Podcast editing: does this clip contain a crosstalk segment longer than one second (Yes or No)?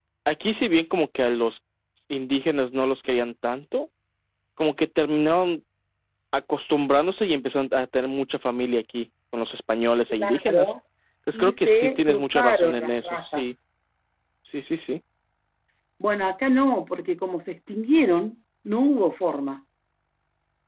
Yes